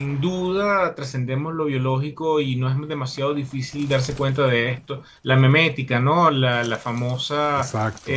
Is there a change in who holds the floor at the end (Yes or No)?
No